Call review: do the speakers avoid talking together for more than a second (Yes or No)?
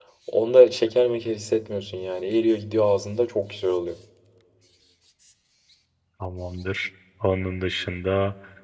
Yes